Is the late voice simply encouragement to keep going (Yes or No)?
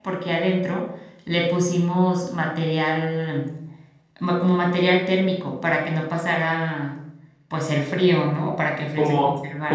No